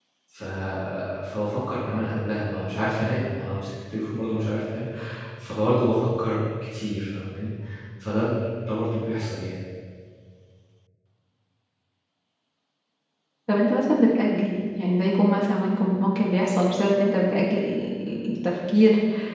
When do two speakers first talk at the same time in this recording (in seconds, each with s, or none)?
none